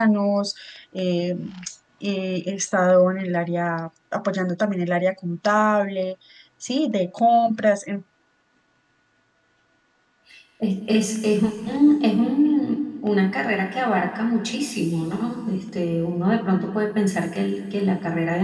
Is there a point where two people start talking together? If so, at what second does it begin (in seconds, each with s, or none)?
none